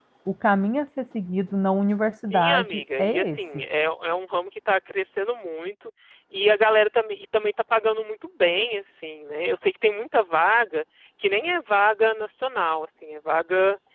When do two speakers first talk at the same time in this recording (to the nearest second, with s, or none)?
2 s